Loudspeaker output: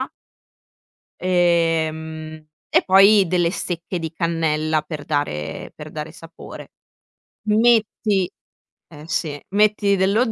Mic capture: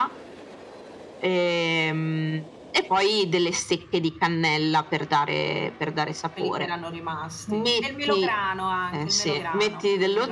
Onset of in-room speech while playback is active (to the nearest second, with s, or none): 6 s